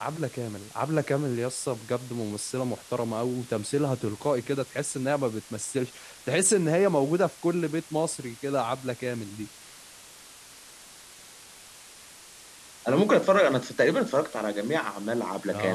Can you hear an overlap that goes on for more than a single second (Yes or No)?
No